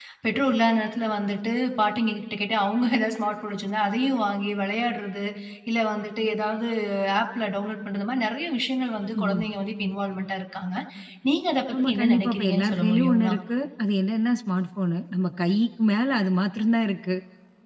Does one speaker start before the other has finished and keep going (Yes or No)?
Yes